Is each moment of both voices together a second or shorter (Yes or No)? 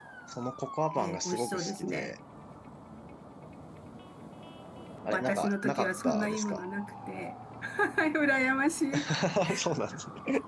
No